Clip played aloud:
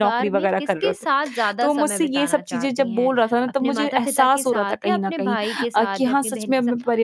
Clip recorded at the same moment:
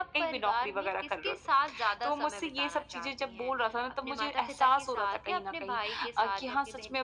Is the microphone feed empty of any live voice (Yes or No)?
Yes